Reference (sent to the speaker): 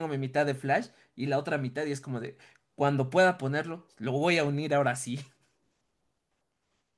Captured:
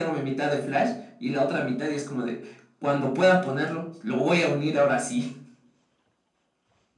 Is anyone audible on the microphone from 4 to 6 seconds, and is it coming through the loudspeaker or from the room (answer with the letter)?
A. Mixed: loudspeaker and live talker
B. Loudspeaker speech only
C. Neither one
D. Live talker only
B